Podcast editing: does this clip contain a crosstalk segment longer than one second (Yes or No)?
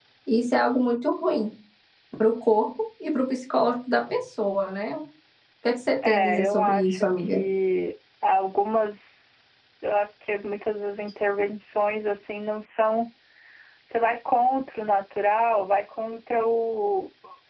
Yes